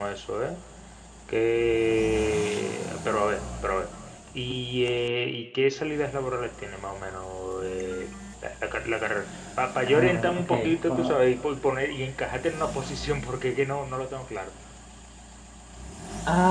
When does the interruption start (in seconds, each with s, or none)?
9.9 s